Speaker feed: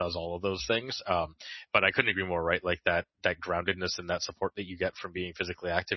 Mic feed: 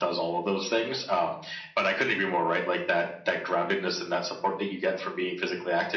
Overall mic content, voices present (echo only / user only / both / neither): echo only